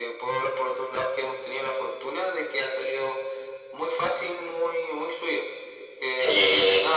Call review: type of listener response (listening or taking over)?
listening